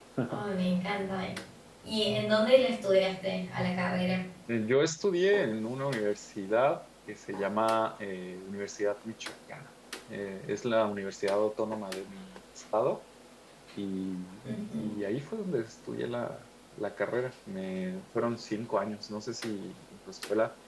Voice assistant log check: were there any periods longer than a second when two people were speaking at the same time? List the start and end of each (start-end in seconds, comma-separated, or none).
none